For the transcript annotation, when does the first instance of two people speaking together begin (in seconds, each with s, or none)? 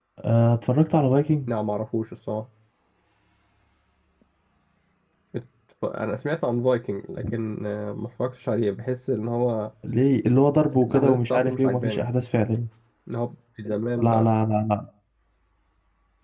10.7 s